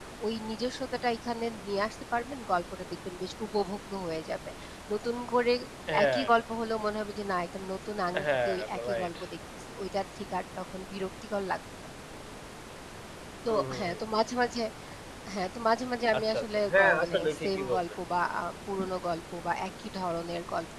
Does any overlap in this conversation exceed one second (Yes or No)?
Yes